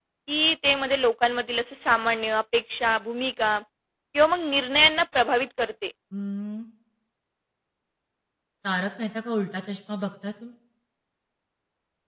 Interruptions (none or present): none